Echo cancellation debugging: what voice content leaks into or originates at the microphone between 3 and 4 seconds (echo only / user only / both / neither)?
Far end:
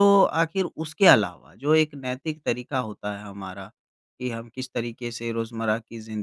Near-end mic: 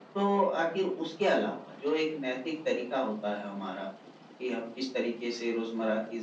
echo only